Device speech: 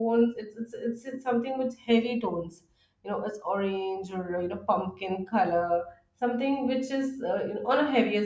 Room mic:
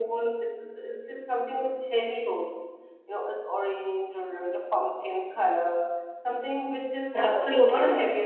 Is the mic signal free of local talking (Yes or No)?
No